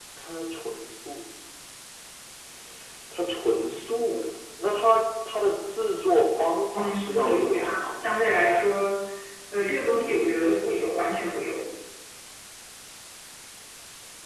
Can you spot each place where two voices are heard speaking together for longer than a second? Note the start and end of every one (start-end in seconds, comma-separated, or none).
6.7-8.1